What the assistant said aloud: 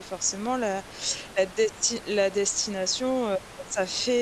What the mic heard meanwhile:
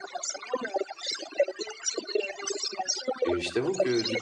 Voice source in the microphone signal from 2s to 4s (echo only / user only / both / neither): both